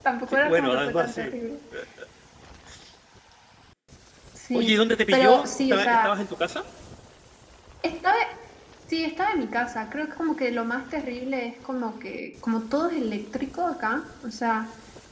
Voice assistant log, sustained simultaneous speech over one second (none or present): present